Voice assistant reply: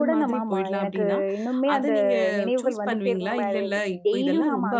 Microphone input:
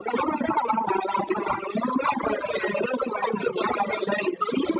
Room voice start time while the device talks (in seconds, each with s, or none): none